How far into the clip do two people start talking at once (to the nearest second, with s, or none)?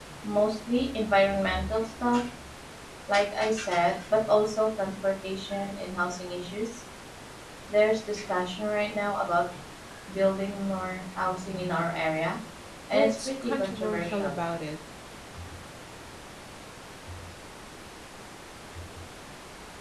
13 s